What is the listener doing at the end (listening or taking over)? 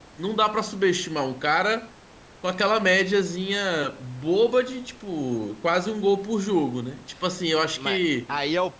taking over